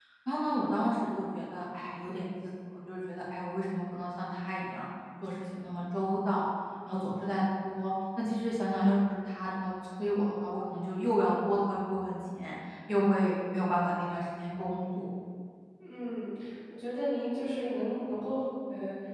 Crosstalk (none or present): none